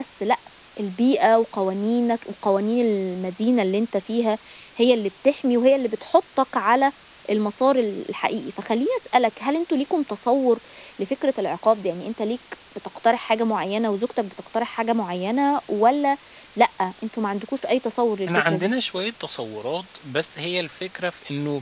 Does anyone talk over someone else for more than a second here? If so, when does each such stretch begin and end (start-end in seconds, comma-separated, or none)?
none